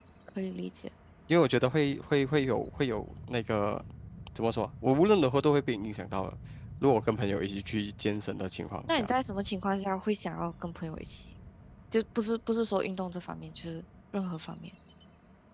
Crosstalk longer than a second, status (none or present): none